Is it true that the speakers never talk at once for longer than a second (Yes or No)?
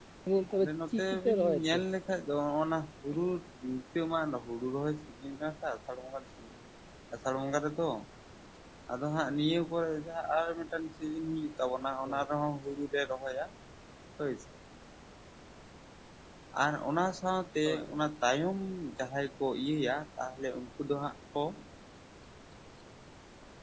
No